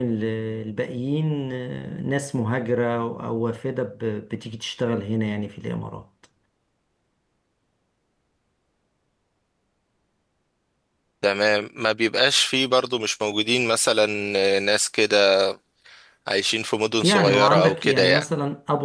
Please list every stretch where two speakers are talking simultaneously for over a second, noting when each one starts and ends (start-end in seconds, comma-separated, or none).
17.0-18.2